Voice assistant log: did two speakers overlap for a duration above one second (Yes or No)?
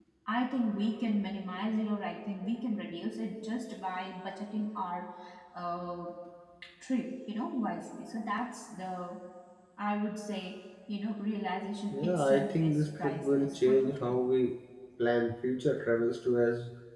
Yes